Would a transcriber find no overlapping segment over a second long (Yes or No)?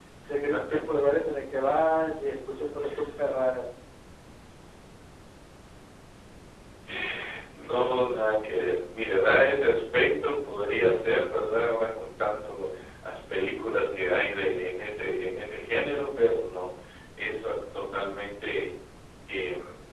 Yes